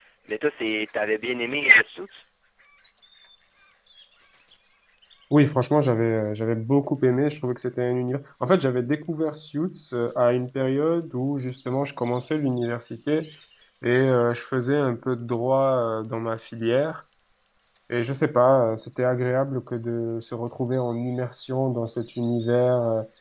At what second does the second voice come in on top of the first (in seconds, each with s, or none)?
none